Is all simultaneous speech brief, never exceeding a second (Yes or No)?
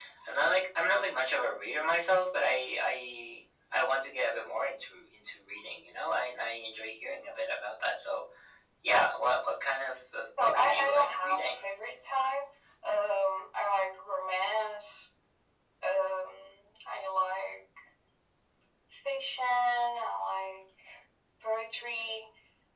No